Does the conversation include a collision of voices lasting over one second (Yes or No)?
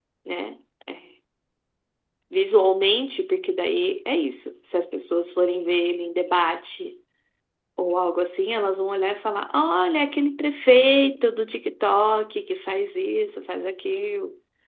No